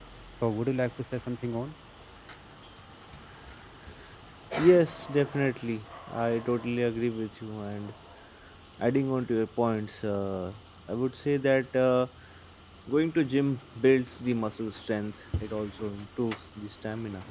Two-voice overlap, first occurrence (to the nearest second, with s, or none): none